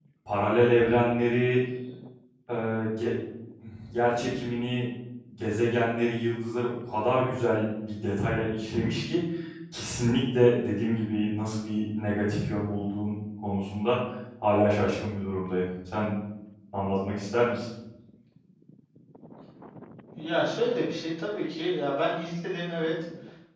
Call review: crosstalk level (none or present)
none